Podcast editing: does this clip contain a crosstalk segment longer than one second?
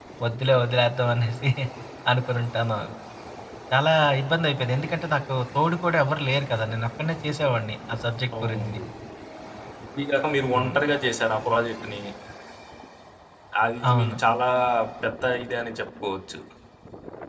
No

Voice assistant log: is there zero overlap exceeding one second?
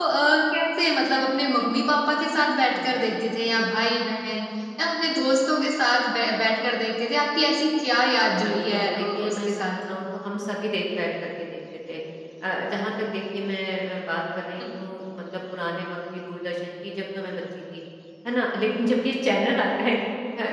No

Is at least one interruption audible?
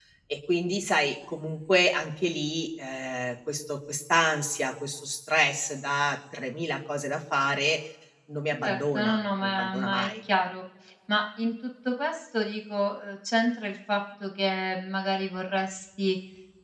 Yes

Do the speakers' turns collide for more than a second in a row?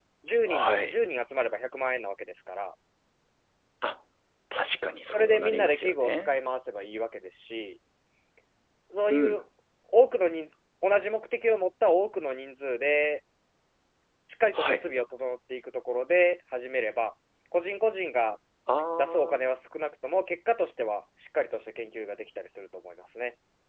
Yes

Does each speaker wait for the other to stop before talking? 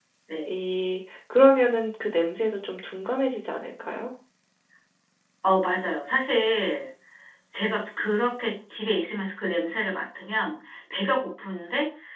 Yes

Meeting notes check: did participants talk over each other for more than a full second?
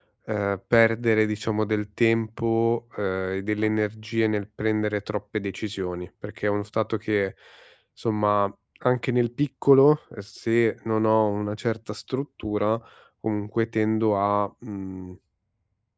No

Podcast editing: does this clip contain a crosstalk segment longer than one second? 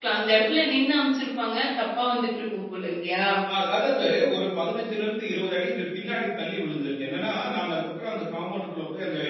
No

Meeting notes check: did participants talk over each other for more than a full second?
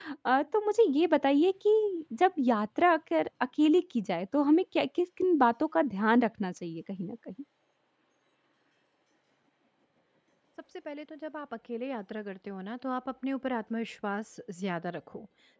No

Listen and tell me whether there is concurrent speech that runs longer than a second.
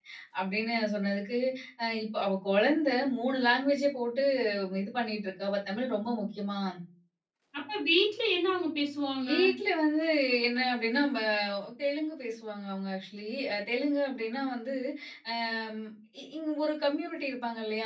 No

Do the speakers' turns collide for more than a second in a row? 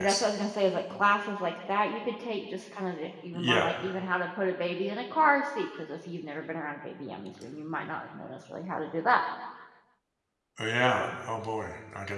No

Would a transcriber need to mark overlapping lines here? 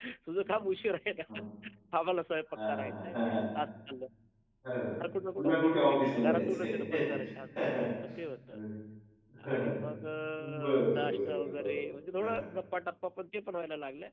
Yes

